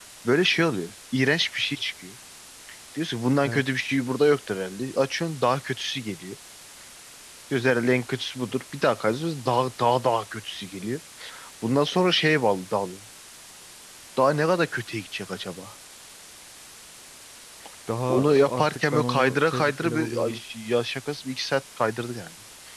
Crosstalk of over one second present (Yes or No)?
Yes